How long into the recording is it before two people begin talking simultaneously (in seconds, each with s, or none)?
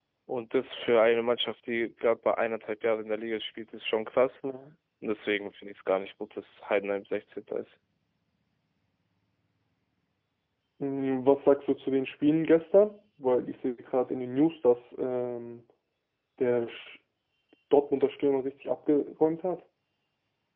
none